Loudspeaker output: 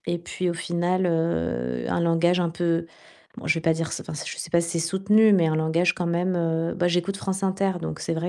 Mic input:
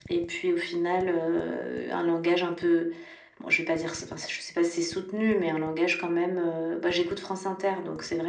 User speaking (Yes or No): No